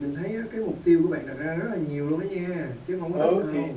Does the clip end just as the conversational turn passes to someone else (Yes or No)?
Yes